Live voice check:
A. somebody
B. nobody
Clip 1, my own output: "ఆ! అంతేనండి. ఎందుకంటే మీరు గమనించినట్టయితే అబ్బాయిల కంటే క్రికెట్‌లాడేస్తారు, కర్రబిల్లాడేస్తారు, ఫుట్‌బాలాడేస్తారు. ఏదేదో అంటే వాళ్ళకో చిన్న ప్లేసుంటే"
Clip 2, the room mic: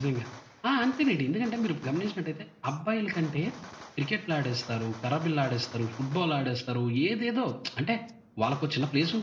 B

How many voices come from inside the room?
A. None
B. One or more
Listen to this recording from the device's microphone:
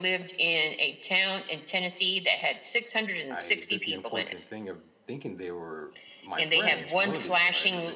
B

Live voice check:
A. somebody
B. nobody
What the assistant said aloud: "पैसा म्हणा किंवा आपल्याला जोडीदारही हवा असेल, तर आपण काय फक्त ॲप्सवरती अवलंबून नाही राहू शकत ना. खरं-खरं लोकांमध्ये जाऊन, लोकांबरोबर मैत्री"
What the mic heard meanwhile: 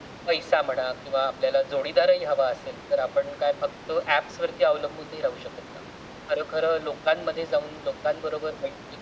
B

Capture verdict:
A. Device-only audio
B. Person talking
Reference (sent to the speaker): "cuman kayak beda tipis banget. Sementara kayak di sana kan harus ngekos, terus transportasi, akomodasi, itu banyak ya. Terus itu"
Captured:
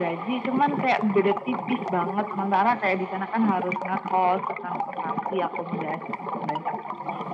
A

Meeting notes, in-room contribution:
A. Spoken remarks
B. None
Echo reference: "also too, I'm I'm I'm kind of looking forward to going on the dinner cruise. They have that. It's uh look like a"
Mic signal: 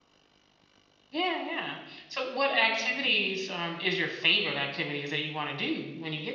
A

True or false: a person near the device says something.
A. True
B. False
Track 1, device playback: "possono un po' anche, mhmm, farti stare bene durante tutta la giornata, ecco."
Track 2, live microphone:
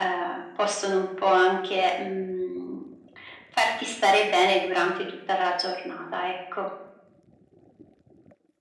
B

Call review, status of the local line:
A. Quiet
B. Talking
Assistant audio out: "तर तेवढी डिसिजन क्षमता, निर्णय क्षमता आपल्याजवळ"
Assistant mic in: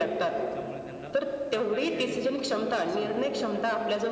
B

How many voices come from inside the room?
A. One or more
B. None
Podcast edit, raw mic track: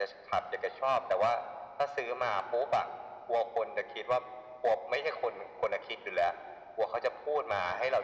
B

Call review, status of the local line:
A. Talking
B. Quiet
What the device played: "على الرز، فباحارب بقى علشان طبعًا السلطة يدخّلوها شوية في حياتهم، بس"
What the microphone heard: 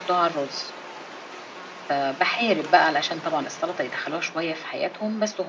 B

